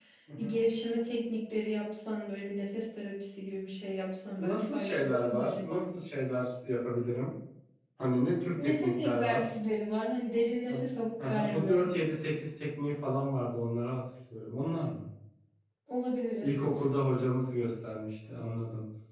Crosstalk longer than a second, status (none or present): present